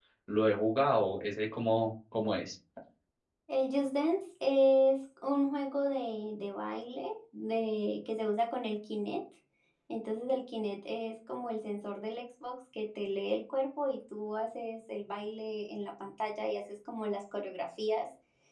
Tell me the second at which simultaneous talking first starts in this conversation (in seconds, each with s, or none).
none